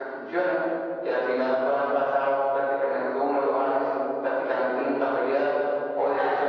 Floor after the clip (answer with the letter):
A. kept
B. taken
A